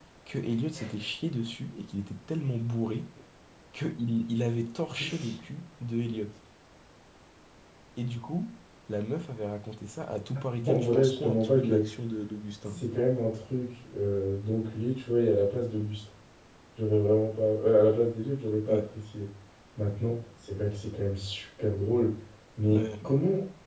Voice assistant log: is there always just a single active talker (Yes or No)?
No